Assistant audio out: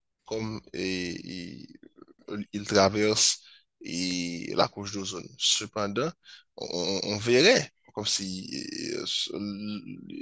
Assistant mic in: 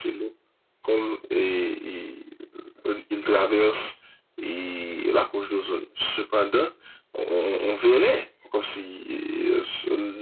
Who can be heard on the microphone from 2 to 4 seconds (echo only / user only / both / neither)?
echo only